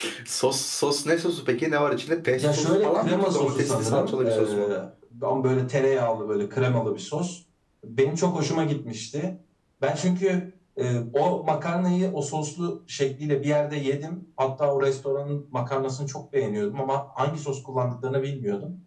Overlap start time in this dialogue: 2.4 s

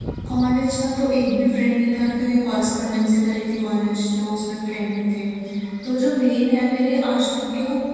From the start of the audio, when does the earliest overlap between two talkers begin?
none

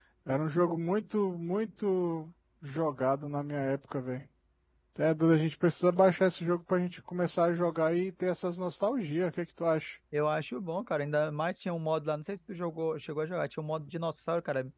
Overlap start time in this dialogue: none

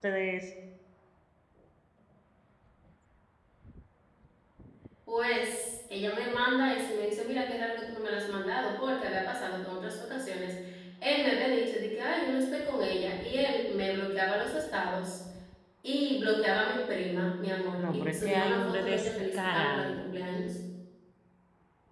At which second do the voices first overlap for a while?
17.8 s

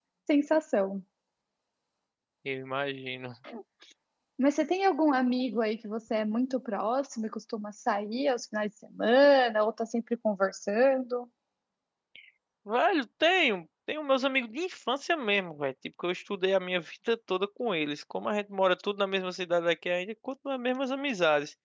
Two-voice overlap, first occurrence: none

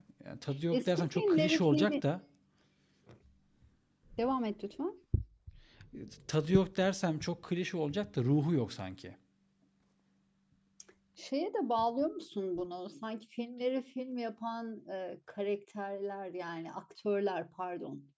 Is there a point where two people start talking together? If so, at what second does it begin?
0.7 s

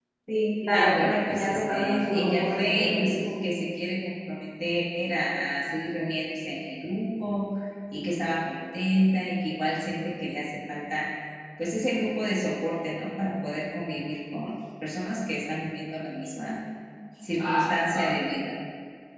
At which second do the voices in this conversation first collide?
0.7 s

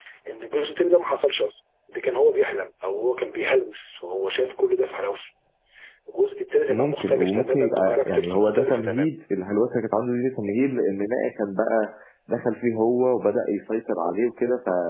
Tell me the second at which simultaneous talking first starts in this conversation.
6.7 s

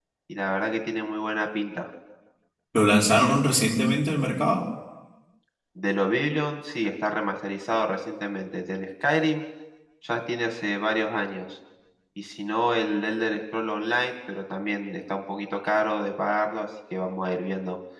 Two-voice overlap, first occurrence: none

